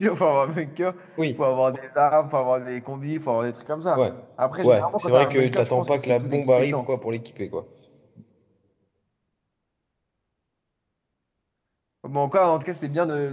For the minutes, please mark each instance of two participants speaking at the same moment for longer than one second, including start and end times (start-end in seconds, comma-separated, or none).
4.6-6.9